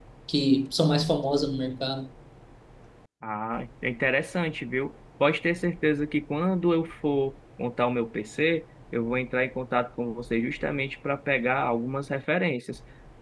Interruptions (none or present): none